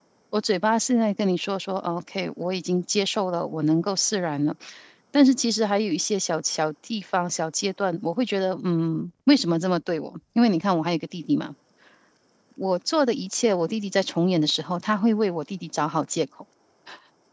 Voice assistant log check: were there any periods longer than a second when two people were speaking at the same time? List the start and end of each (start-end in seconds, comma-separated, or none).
none